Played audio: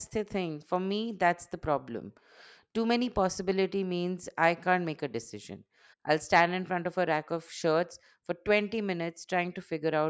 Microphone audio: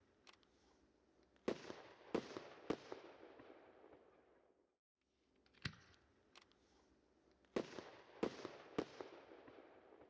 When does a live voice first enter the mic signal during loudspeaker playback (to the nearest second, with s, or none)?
none